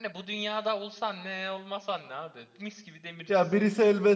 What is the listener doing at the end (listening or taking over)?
taking over